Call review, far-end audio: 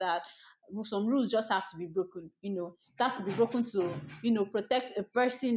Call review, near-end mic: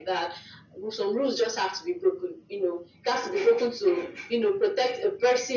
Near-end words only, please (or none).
none